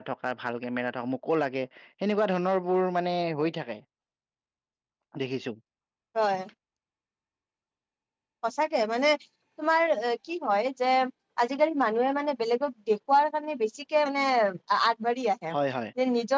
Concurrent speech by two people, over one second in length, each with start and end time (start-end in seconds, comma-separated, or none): none